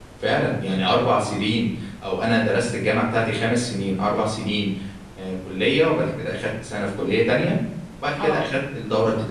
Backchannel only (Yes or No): Yes